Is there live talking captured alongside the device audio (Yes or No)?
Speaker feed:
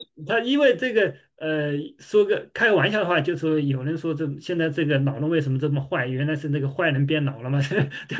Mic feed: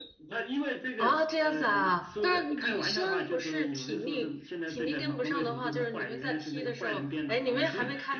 Yes